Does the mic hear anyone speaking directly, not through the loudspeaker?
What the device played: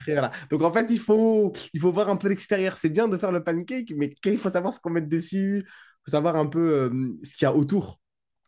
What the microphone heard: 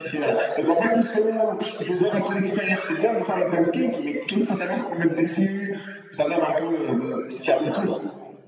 No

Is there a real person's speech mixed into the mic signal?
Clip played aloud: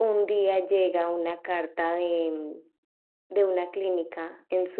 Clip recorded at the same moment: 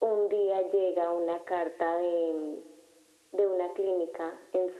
No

